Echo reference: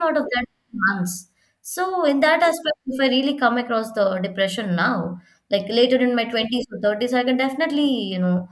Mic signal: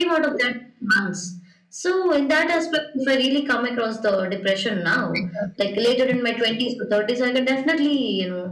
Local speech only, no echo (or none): I totally agree.